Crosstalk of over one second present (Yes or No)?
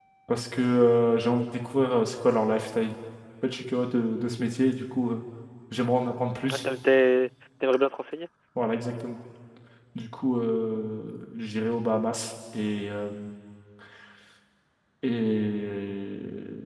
No